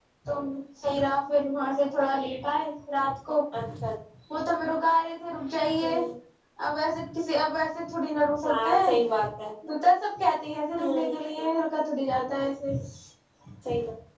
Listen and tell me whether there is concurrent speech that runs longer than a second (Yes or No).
No